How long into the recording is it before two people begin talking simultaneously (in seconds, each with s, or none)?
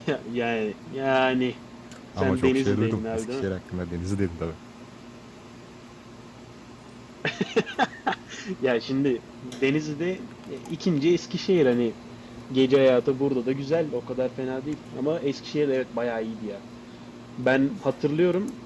2.2 s